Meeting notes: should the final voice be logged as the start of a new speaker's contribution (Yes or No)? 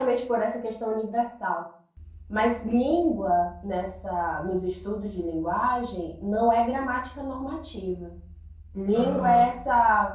No